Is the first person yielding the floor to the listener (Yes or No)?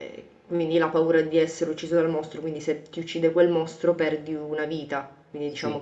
No